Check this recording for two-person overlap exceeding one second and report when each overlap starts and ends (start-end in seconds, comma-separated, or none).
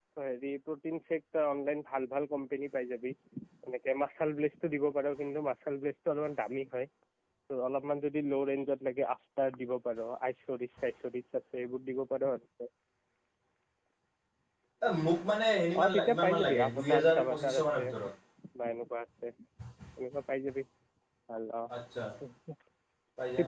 15.8-17.9